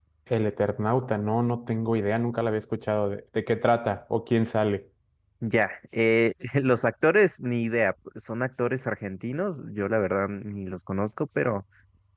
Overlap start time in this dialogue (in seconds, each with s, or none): none